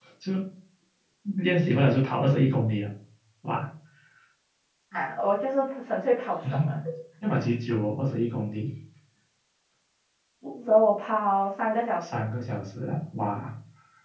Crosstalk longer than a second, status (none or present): none